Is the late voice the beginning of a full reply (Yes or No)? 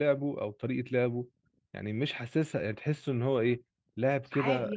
No